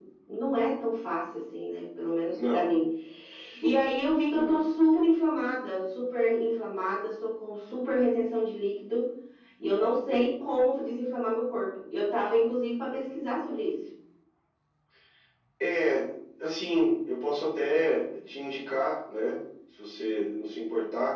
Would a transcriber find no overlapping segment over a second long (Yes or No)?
Yes